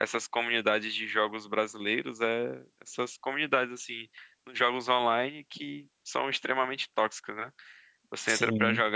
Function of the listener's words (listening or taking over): listening